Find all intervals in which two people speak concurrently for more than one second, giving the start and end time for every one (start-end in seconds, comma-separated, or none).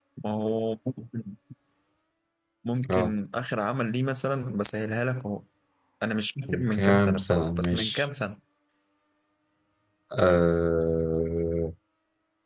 6.5-8.1